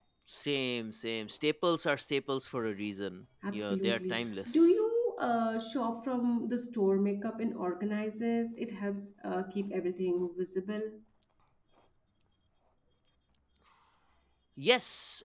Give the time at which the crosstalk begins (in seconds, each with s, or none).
3.4 s